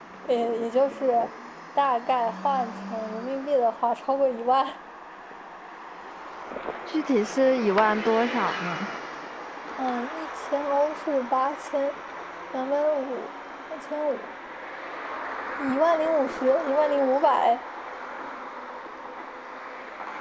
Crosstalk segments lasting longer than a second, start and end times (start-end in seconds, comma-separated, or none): none